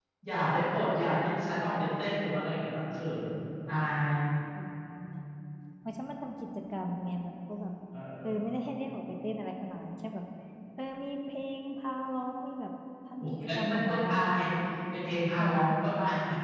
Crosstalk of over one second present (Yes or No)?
Yes